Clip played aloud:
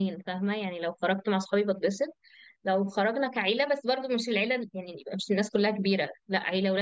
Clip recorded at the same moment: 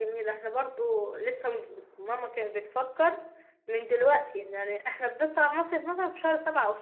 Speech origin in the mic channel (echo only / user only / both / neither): user only